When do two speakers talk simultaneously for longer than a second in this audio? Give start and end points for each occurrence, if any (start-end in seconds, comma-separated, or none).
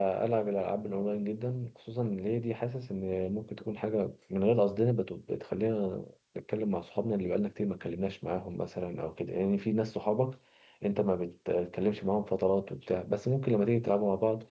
none